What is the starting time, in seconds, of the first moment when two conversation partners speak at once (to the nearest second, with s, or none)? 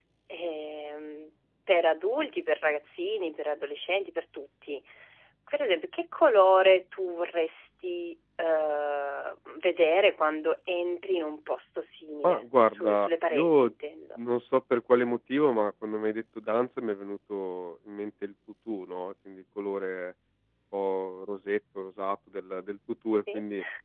12 s